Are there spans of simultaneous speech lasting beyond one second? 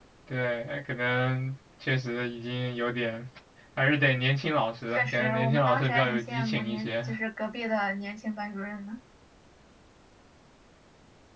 Yes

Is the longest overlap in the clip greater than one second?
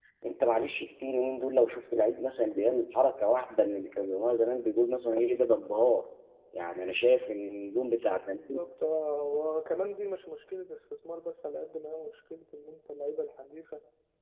No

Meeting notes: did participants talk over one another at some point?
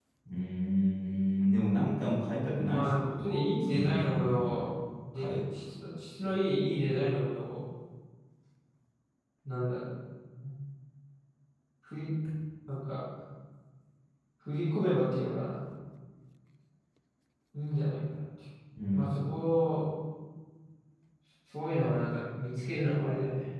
Yes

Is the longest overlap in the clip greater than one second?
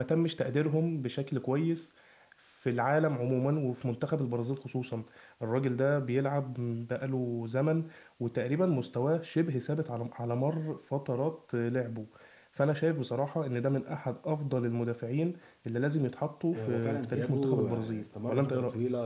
Yes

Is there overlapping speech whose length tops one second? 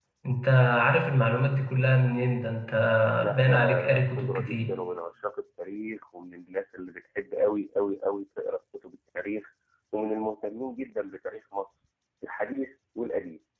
Yes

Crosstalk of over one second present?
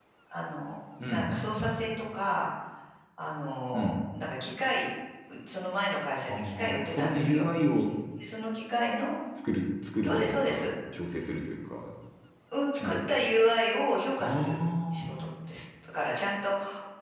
Yes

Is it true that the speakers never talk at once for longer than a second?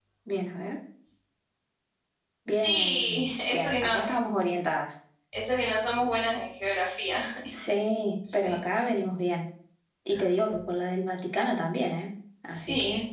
No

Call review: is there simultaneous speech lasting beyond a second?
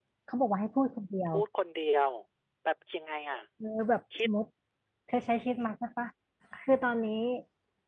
No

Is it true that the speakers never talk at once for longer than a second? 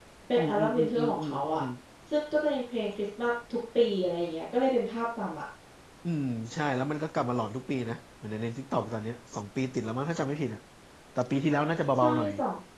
No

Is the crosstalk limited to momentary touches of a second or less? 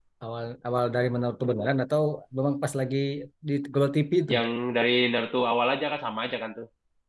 Yes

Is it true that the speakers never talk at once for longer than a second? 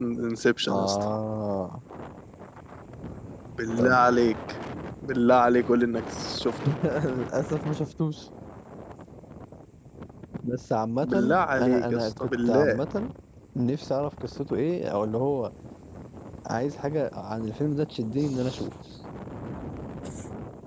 No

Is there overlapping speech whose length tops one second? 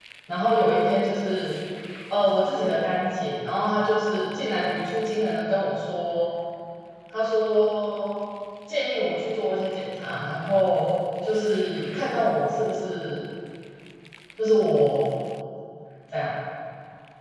No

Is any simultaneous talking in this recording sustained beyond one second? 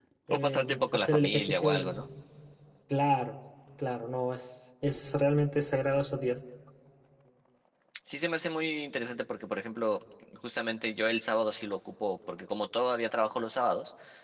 Yes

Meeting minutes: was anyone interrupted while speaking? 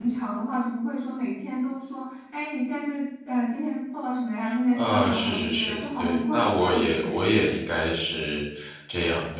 Yes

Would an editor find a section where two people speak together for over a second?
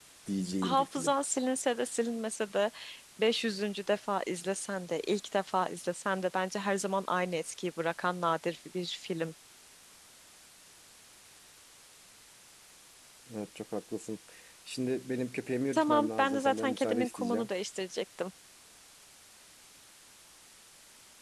Yes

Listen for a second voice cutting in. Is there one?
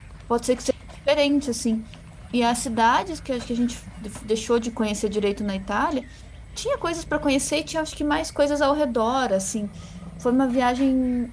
No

